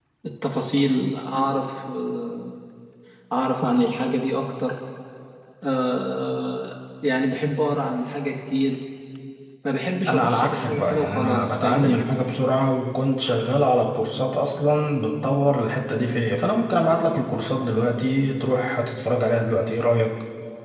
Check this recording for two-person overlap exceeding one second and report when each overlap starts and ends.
10.1-12.0

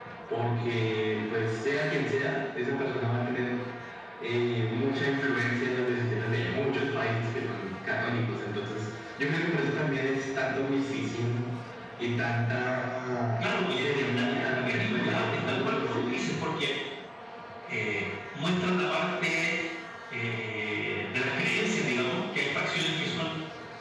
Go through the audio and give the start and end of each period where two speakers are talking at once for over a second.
13.4-16.0

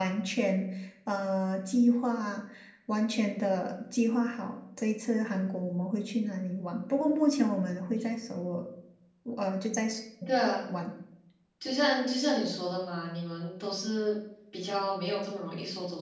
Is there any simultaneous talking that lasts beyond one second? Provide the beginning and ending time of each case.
none

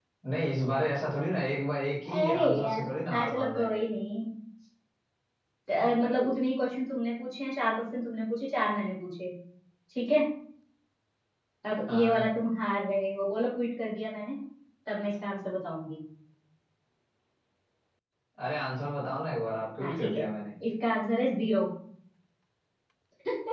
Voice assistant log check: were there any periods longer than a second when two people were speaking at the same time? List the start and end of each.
2.1-3.8

